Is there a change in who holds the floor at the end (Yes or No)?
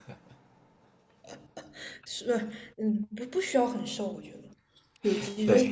Yes